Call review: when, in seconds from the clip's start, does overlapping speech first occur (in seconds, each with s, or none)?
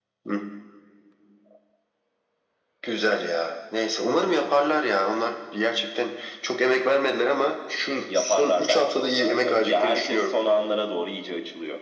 8.1 s